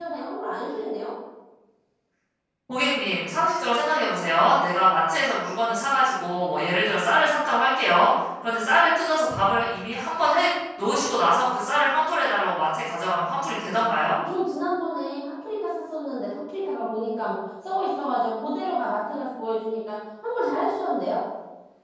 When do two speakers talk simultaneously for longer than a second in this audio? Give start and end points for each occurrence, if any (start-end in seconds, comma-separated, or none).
none